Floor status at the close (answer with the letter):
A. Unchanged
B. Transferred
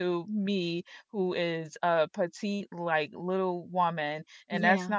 A